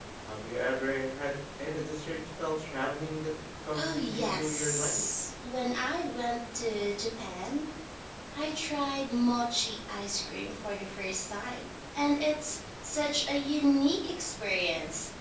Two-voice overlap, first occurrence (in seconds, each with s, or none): 3.7 s